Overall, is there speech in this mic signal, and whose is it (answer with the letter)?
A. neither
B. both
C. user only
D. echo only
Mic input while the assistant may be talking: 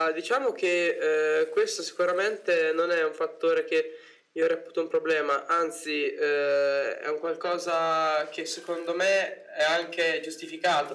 D